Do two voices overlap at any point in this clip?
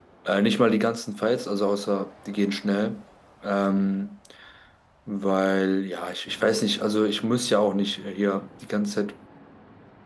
No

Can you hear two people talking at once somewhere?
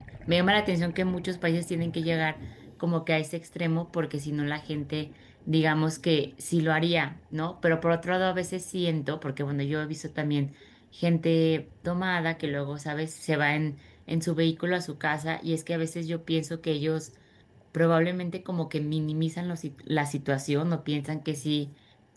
No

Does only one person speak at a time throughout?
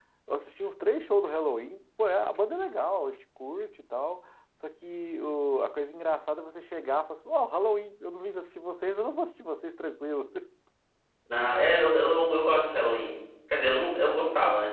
Yes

